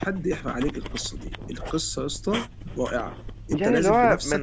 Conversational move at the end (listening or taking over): taking over